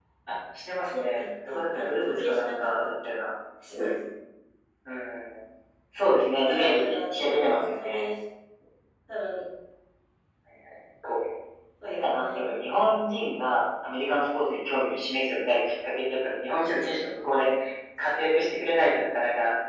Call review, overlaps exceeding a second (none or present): present